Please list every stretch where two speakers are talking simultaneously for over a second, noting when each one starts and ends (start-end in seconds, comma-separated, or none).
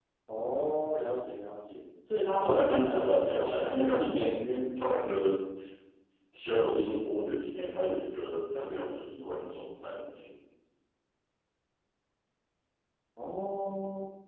2.4-3.9